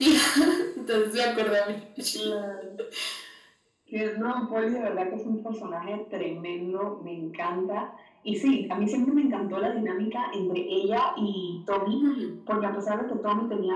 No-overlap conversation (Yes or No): Yes